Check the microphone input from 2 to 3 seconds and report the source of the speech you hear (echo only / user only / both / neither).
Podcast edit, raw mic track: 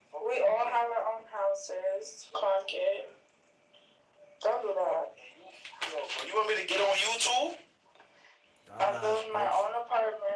echo only